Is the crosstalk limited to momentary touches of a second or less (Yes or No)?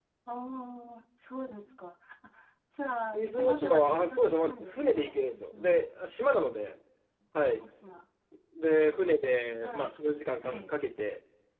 No